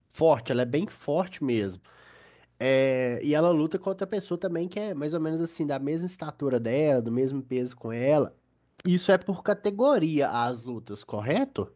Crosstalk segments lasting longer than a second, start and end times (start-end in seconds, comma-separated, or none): none